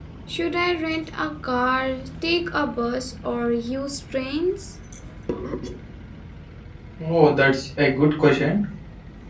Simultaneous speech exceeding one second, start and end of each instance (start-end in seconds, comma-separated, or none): none